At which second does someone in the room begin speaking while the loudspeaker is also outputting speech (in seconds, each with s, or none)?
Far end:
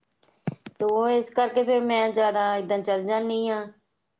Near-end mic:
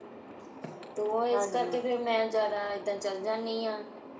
1.3 s